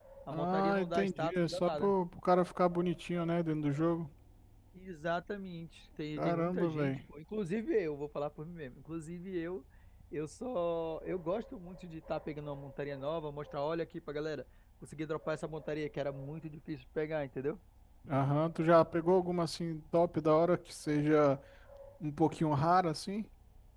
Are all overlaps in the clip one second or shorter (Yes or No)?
No